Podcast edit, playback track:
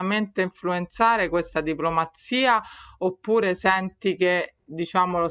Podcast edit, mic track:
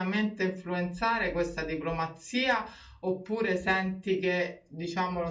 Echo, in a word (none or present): present